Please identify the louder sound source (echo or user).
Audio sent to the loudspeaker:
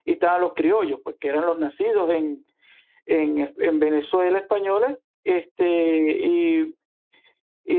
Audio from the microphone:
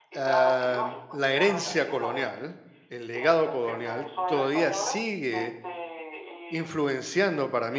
user